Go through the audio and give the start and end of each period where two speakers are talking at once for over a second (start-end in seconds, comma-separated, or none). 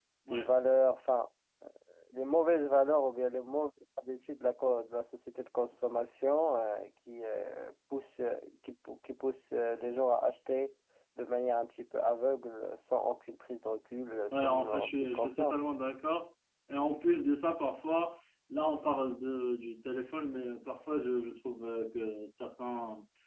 14.3-15.6